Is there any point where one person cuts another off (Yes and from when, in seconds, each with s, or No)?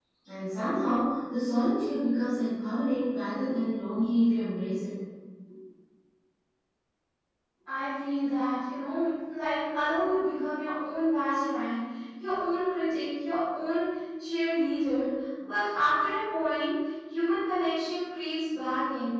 No